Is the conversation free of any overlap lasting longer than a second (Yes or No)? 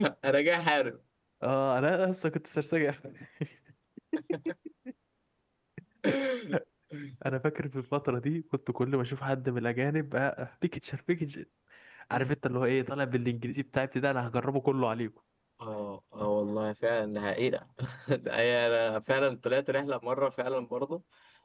Yes